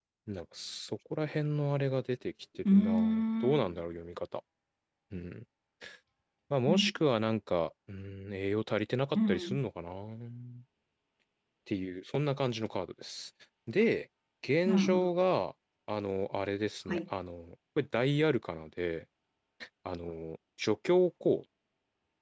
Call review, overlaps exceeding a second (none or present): none